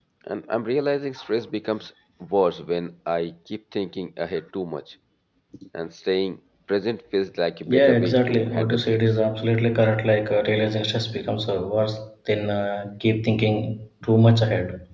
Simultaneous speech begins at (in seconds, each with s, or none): 7.7 s